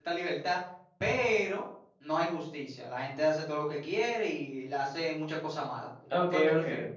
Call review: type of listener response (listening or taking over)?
taking over